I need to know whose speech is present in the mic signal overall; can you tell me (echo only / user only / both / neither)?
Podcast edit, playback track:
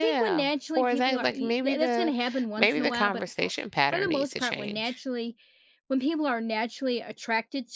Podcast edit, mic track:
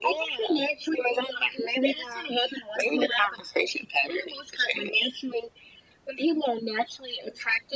echo only